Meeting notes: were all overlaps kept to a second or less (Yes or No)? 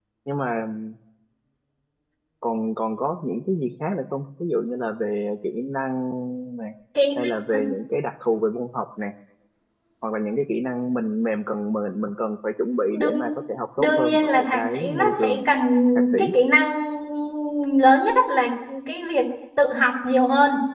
No